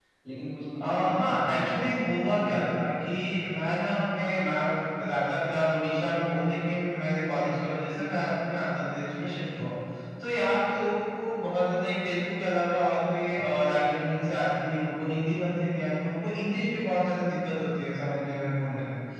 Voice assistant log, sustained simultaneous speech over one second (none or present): present